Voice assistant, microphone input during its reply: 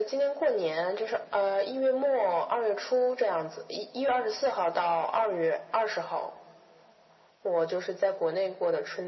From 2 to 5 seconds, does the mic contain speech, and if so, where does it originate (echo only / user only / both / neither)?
echo only